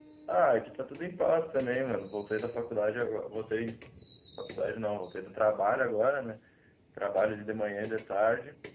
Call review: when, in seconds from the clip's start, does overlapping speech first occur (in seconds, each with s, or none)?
none